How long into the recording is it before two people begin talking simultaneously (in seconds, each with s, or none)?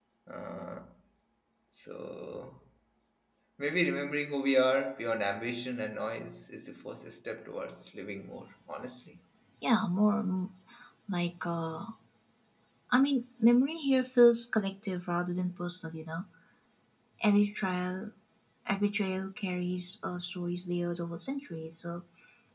none